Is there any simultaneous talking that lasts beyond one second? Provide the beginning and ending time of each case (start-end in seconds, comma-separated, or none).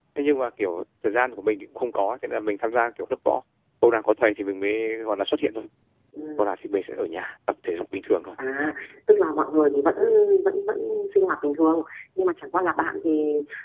none